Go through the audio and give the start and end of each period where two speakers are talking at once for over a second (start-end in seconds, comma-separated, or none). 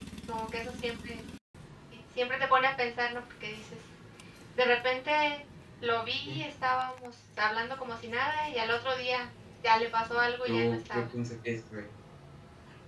9.7-11.0